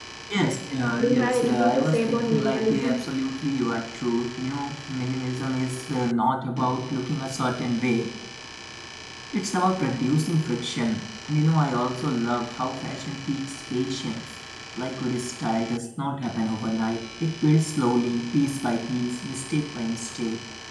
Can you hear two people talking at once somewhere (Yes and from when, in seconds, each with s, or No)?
Yes, from 1.0 s